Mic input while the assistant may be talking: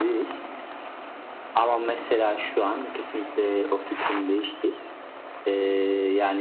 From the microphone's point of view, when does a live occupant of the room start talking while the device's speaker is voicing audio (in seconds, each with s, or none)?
none